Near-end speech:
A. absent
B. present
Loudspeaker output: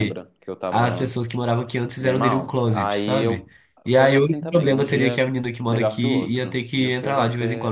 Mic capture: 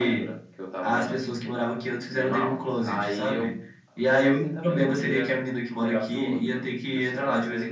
B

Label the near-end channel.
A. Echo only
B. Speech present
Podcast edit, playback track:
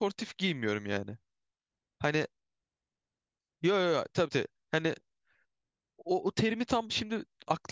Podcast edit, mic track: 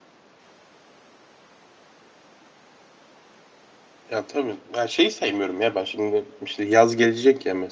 B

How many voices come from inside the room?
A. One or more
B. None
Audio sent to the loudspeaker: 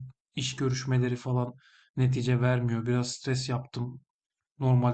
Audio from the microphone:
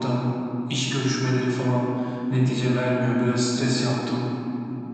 B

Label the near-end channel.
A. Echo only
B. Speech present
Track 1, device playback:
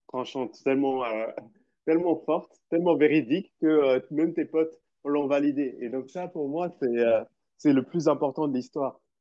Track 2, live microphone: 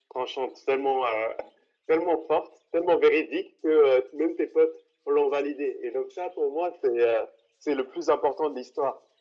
A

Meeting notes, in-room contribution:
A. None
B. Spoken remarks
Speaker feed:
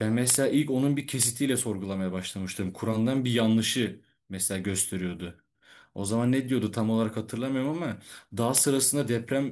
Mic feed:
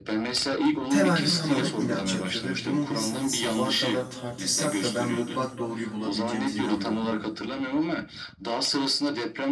B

